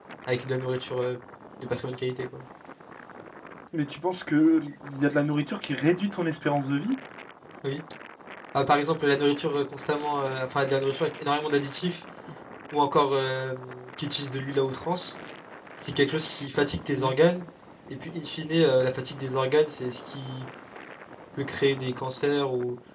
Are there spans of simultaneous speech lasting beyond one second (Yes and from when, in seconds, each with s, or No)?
No